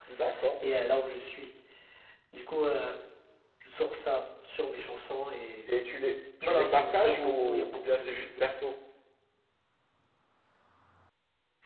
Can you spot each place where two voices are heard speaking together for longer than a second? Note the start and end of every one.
6.4-8.4

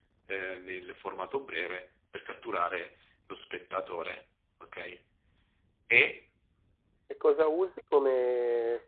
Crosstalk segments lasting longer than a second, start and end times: none

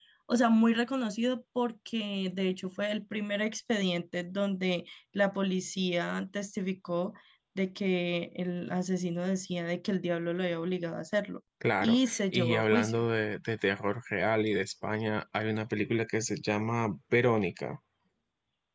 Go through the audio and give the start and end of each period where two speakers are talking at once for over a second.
11.8-13.0

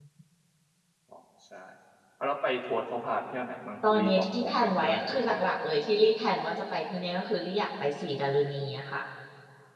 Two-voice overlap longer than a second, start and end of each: 3.8-5.5

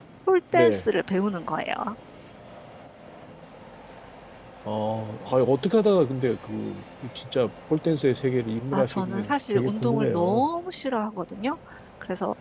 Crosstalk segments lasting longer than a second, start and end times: 8.7-10.5

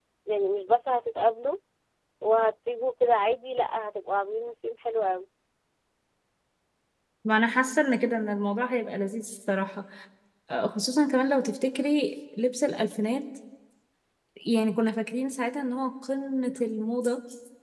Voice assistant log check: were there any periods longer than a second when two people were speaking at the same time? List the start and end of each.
none

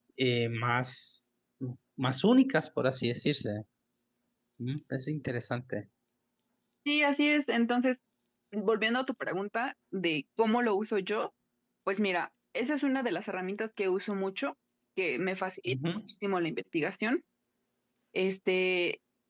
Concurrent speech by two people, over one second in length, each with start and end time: none

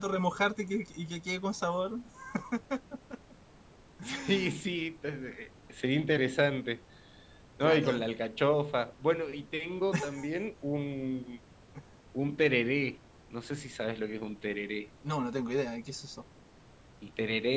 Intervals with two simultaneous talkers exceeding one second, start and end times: none

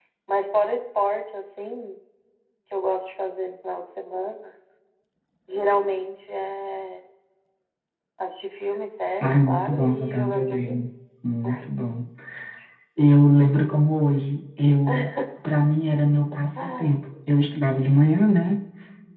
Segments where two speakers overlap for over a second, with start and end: 9.2-10.9

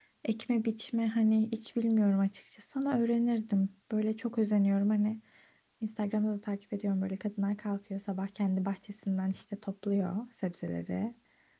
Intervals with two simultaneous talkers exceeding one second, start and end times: none

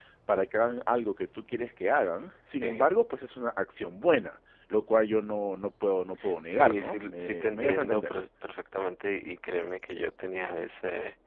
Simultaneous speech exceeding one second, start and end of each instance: 6.5-8.1

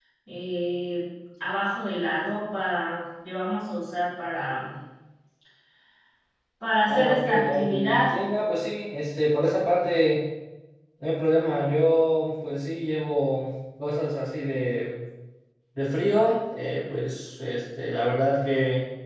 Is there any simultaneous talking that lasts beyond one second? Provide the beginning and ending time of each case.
6.8-8.1

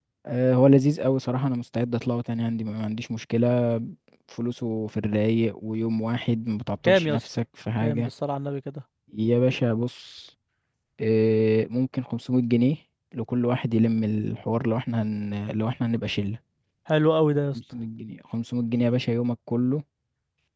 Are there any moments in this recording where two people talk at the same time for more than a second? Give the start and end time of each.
none

